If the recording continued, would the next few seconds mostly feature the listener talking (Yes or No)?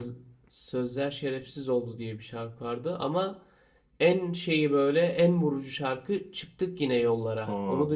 Yes